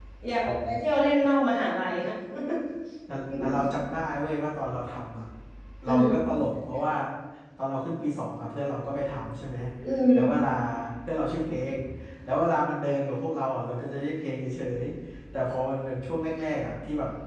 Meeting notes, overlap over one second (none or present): none